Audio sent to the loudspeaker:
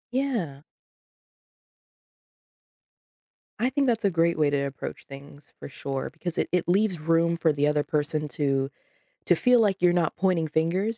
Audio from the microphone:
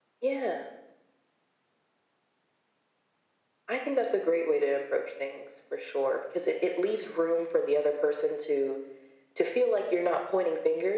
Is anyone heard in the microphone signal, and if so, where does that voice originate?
echo only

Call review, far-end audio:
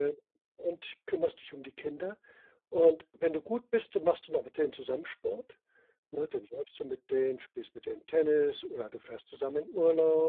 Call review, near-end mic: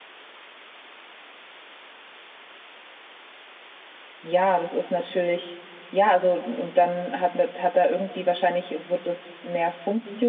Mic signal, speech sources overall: user only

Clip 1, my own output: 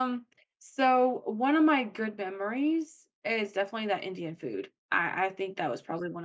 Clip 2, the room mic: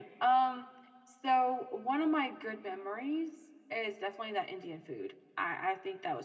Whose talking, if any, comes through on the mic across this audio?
echo only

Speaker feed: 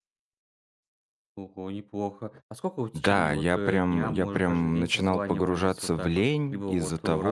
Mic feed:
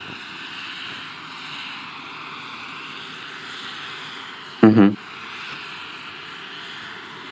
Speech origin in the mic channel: user only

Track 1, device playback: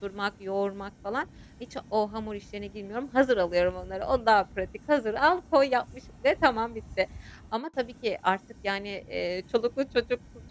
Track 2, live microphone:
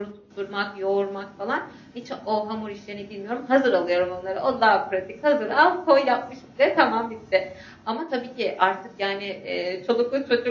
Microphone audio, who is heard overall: echo only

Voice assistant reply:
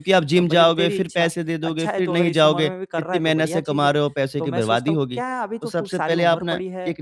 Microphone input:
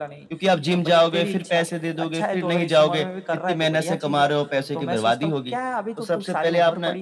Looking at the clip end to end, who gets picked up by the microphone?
echo only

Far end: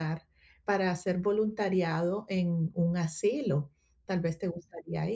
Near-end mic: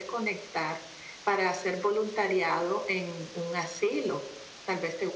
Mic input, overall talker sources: echo only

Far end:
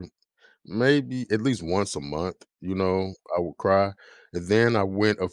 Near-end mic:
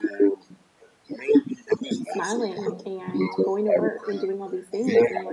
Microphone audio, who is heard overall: both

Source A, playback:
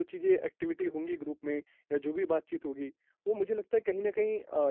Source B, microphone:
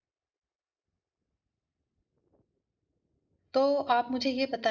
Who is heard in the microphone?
user only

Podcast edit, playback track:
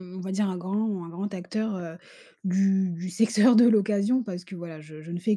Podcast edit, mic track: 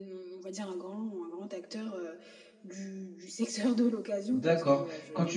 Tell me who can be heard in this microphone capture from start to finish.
both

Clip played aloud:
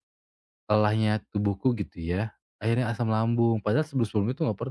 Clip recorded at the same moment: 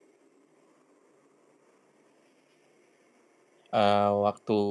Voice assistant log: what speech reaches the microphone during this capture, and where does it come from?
user only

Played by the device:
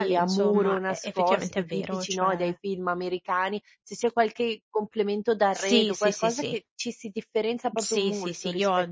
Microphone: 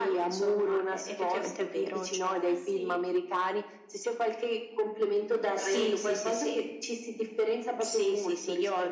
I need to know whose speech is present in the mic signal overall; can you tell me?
both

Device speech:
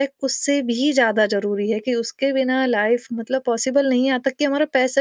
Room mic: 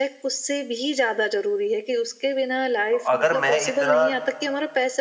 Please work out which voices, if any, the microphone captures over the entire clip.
both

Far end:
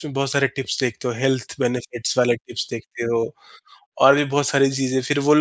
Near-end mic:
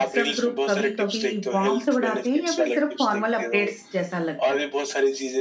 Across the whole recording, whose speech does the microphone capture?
both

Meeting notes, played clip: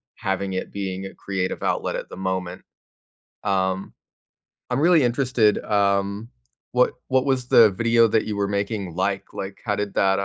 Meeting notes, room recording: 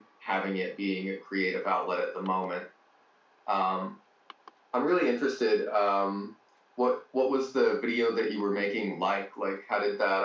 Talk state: echo only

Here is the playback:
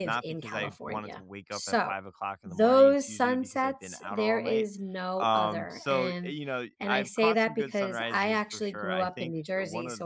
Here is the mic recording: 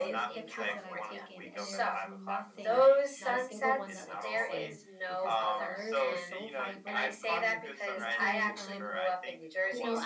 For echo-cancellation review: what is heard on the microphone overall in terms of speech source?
both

